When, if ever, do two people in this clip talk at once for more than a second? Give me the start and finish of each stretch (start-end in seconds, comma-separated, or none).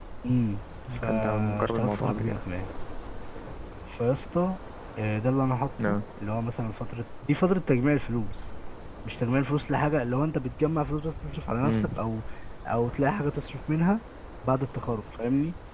1.0-2.4